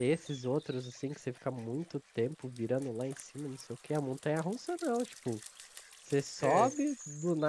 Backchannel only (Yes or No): Yes